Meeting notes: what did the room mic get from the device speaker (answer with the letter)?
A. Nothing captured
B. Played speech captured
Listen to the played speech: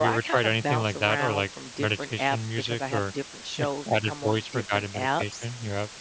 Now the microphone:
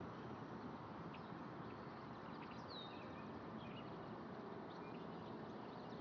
A